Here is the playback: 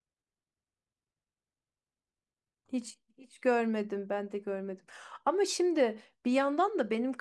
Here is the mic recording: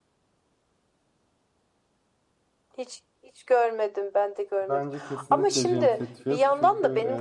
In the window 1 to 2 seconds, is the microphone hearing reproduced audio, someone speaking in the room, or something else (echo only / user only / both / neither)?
neither